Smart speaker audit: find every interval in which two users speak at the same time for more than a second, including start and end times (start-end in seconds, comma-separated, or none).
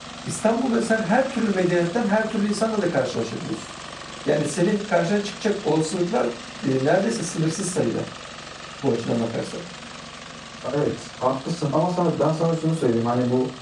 none